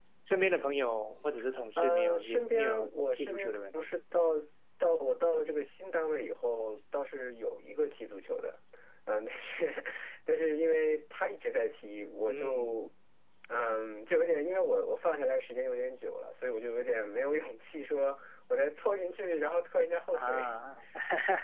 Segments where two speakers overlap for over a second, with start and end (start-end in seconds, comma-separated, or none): 1.8-3.8